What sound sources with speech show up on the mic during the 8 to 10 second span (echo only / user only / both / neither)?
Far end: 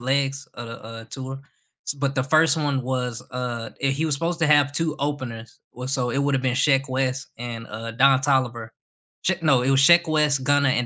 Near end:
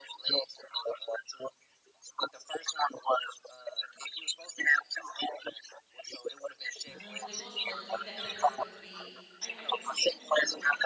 both